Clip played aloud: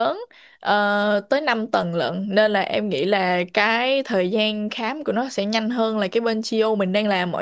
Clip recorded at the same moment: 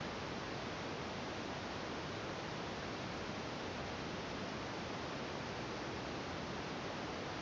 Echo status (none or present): none